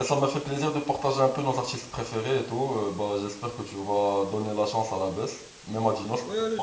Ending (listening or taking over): taking over